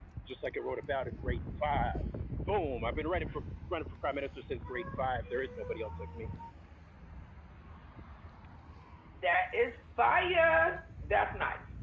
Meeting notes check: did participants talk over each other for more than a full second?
No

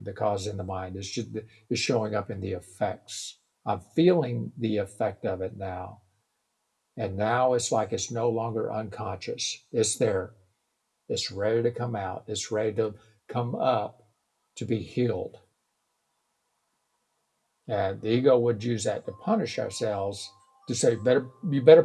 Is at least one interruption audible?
No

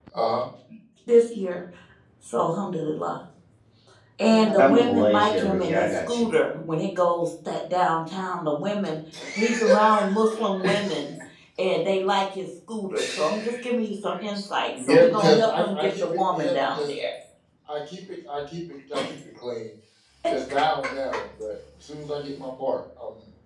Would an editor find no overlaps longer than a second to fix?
No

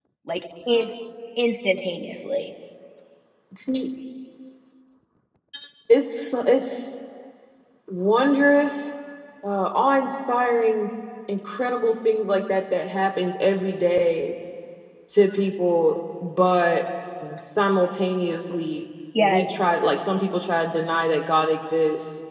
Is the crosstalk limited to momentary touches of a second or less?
Yes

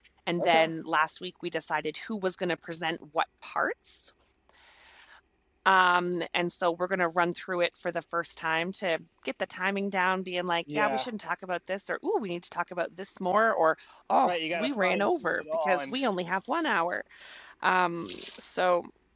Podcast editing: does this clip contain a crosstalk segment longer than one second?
Yes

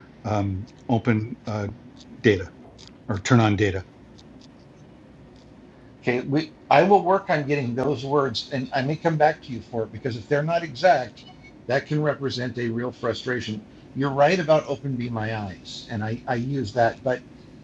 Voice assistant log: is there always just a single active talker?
Yes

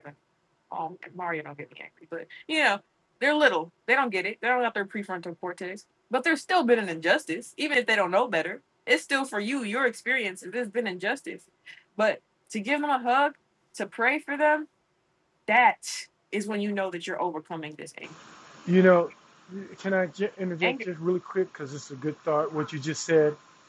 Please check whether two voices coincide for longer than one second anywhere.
No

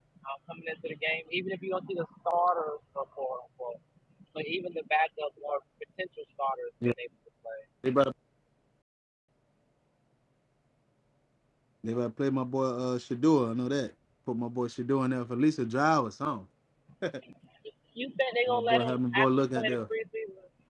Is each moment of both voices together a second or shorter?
No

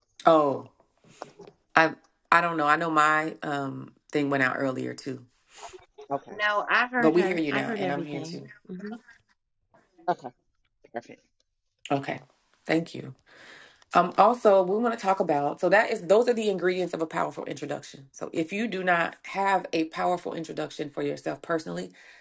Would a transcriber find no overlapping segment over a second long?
No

